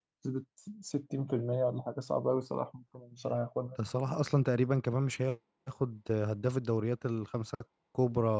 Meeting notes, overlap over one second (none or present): none